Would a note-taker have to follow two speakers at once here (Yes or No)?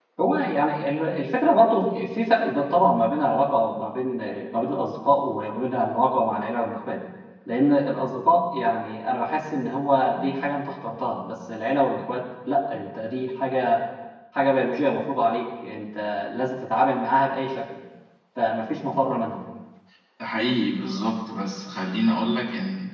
No